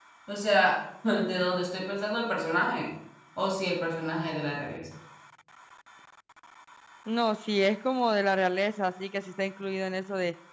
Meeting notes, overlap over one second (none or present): none